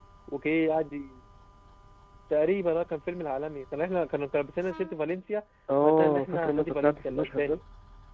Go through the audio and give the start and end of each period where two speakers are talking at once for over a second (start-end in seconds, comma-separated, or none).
5.8-7.6